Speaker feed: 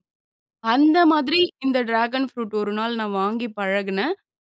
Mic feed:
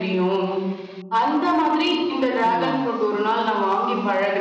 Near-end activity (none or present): present